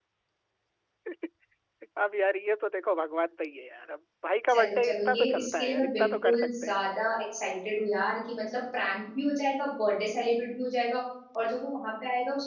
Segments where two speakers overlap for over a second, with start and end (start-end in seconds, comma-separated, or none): 4.5-6.8